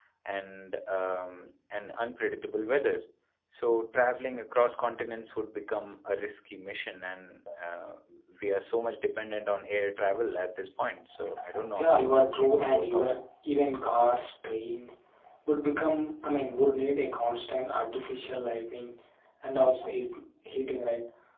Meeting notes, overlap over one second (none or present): present